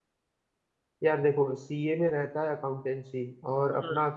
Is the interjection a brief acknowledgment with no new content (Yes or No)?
Yes